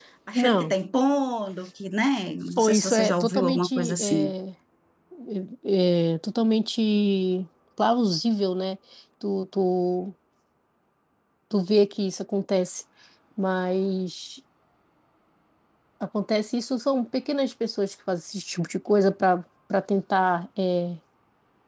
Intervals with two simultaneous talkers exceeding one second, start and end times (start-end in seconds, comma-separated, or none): 2.6-4.3